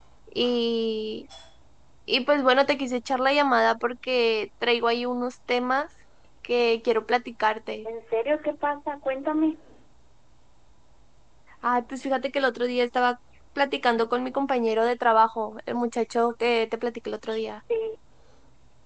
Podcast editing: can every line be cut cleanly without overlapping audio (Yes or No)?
Yes